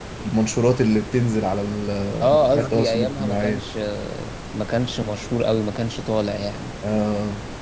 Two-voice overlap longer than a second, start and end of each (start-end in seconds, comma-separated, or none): 2.3-3.6